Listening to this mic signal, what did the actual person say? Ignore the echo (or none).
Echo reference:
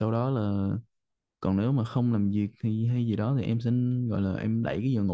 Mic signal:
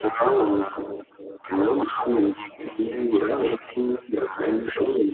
none